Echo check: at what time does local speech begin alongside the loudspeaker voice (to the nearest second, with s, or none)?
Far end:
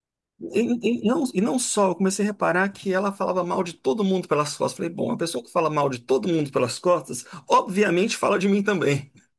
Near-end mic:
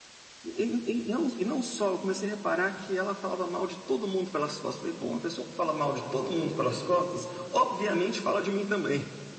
none